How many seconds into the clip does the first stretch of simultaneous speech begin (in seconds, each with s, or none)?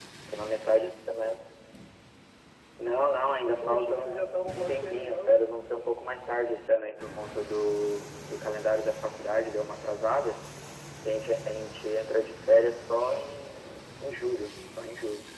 3.6 s